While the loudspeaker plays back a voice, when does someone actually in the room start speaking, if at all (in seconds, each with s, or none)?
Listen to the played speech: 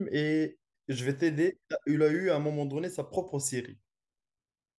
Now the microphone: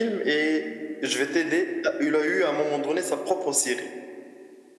none